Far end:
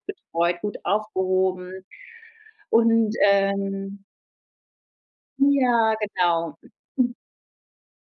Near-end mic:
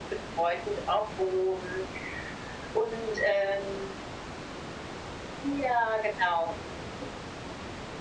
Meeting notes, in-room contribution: none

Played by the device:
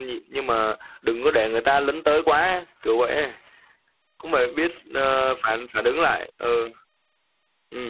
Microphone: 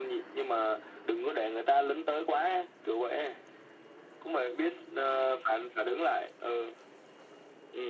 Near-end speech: none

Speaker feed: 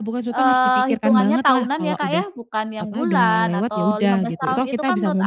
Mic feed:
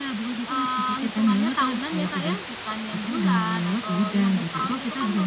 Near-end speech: none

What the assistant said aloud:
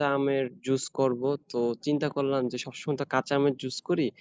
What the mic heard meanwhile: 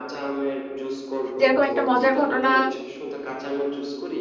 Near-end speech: present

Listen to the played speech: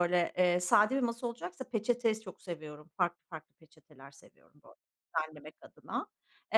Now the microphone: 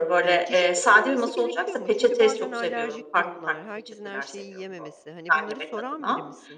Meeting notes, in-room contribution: present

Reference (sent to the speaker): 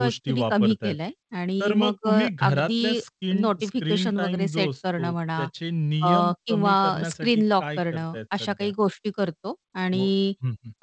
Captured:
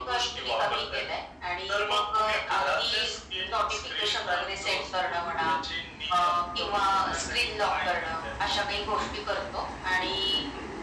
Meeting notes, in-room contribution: none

